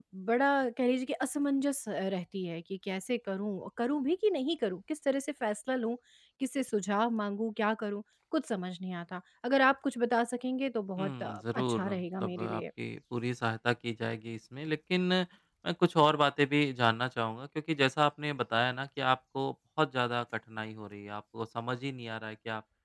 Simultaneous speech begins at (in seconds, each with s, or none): 11.0 s